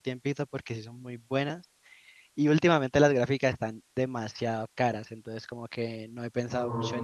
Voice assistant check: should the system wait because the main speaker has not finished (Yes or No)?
No